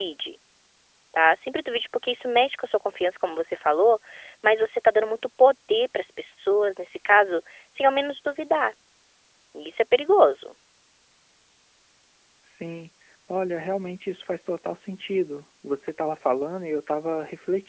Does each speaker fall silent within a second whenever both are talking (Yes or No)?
Yes